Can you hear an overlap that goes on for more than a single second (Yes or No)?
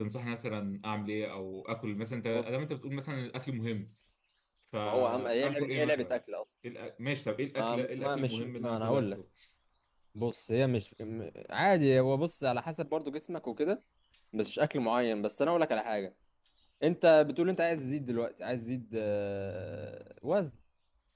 Yes